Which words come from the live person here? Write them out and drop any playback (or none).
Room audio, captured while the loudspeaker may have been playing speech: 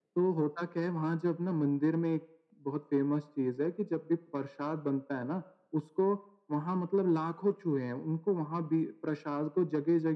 none